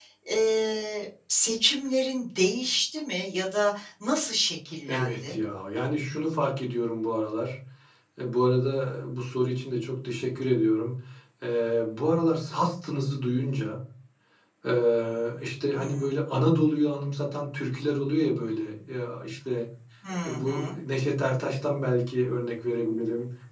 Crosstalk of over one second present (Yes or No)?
No